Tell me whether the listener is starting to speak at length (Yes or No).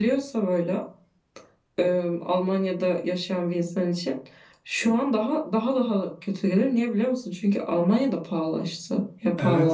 Yes